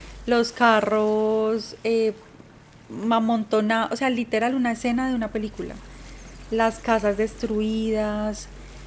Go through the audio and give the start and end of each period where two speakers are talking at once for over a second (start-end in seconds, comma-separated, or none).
none